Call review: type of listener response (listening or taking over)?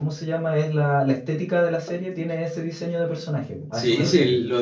taking over